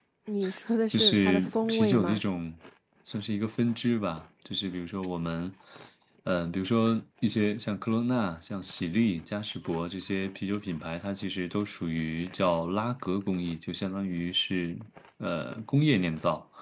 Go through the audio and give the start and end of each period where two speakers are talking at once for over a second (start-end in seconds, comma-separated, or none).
0.9-2.2